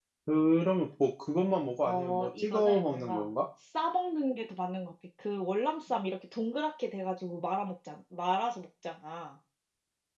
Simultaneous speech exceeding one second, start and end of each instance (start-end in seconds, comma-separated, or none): 1.8-3.3